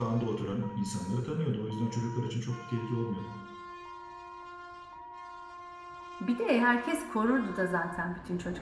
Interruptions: none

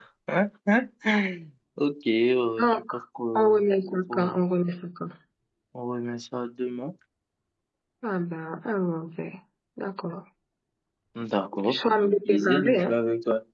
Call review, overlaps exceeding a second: present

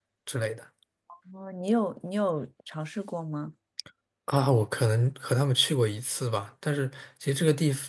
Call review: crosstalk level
none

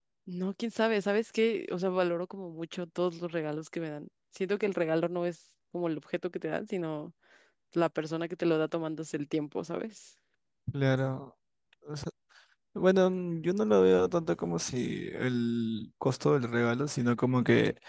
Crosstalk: none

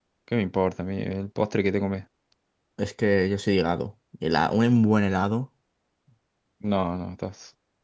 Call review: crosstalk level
none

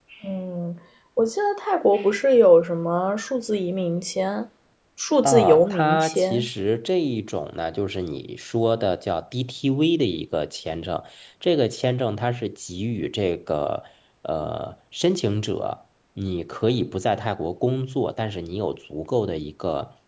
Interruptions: present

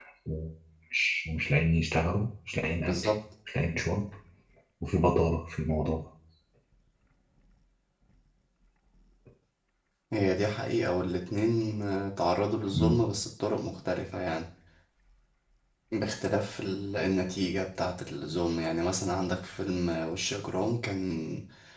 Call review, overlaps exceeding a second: none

